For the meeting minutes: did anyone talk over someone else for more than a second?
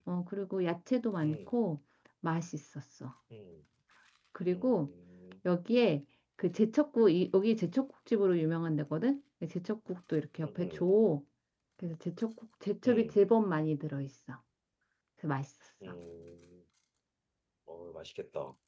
No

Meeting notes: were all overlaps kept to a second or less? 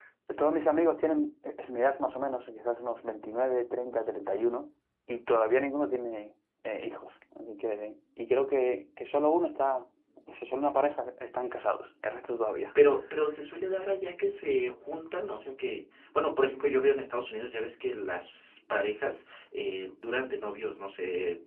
Yes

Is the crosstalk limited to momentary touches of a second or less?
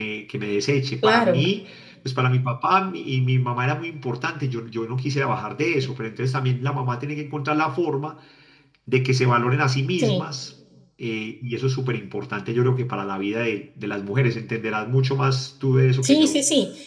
Yes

